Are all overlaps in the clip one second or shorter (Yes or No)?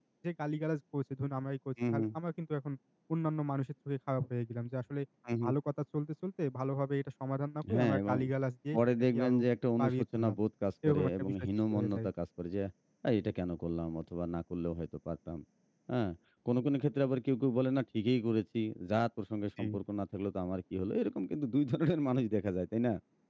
No